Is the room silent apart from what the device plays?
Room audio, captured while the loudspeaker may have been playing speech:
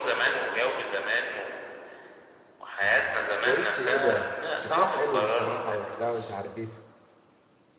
No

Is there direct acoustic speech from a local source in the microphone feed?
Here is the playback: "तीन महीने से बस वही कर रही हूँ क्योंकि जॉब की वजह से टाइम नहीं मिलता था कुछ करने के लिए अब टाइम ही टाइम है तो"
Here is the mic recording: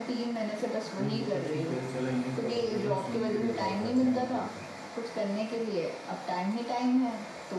Yes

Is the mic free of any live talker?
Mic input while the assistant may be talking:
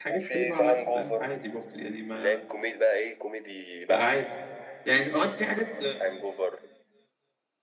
No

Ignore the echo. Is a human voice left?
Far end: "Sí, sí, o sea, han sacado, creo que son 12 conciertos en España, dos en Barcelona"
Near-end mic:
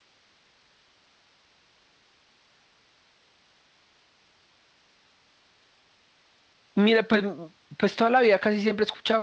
Yes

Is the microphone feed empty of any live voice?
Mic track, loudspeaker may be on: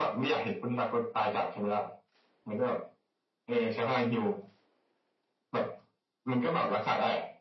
Yes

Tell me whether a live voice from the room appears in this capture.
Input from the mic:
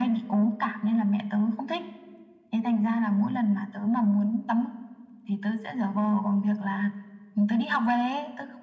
No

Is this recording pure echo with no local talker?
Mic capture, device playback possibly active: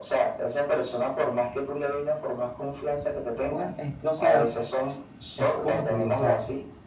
No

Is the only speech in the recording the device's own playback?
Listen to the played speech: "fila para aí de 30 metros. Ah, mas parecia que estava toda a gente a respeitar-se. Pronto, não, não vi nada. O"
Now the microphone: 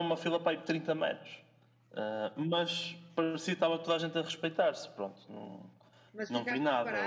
No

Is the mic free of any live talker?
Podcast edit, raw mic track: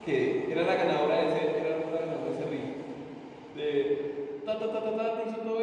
No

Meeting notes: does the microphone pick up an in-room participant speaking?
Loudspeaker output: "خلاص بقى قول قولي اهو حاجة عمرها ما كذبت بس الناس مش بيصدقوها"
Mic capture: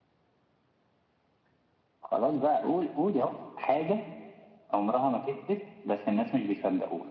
No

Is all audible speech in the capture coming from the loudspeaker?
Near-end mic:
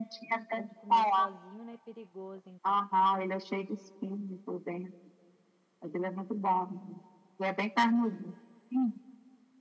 No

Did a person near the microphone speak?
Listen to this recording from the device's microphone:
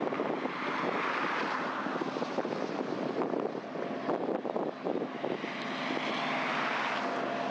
No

